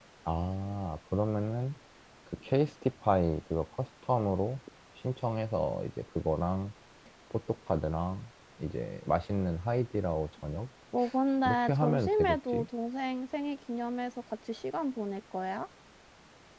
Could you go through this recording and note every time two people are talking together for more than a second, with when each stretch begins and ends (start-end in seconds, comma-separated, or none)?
11.4-12.7